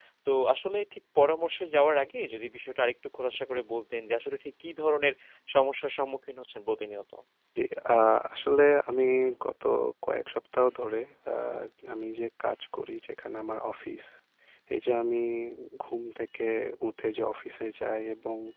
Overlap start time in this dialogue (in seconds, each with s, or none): none